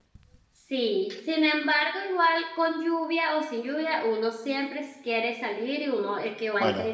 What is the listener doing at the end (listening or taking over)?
listening